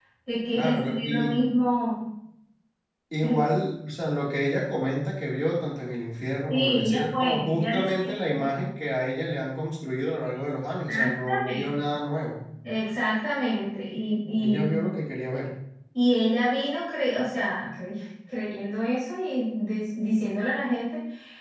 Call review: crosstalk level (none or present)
present